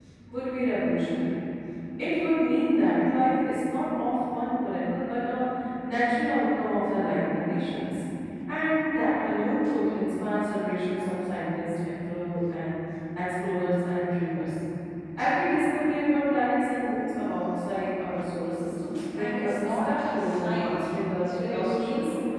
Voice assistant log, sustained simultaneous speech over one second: present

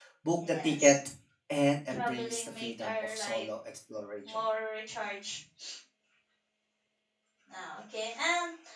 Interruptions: present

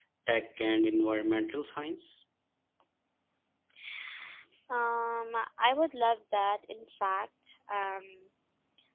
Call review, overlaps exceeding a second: none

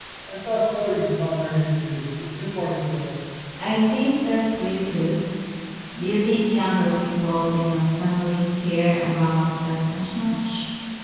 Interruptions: none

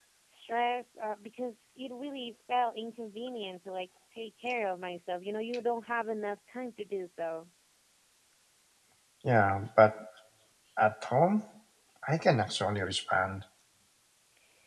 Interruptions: none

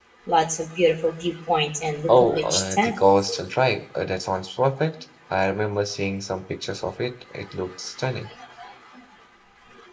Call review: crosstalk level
present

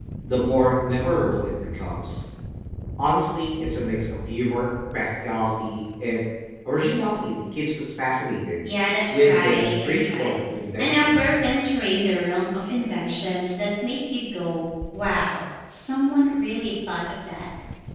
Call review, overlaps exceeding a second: present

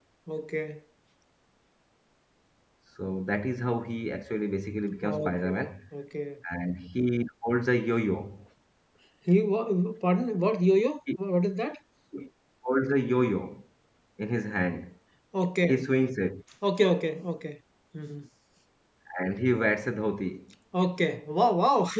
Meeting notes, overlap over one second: none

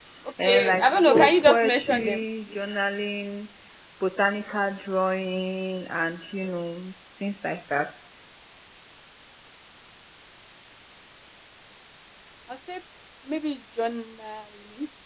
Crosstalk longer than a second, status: present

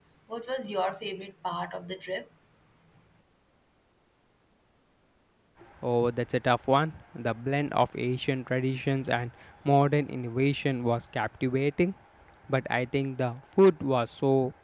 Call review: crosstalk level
none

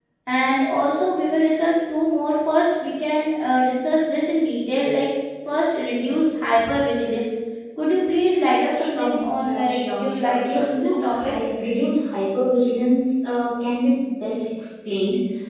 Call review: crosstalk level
present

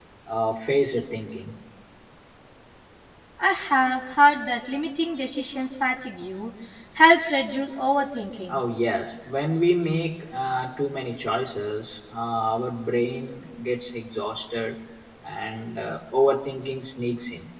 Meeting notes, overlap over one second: none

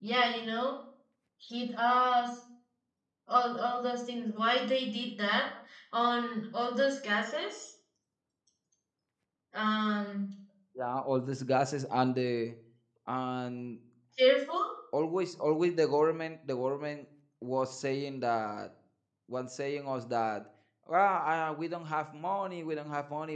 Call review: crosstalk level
none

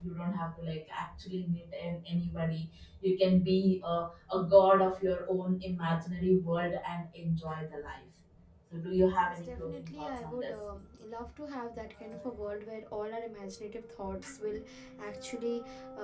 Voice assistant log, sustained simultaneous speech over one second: present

